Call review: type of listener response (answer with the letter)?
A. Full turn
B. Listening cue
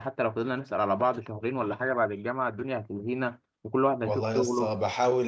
A